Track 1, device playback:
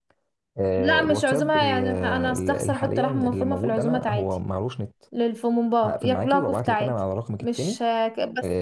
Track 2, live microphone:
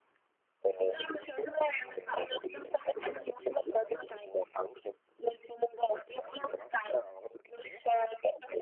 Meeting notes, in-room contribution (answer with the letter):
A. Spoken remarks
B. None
B